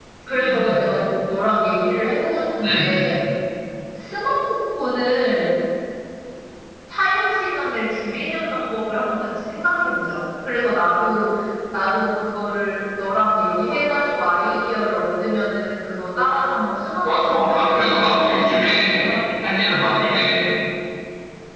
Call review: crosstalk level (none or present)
present